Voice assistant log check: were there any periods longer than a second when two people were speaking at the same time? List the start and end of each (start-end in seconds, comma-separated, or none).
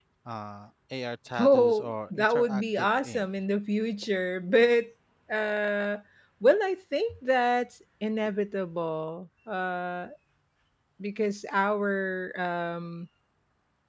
1.4-3.3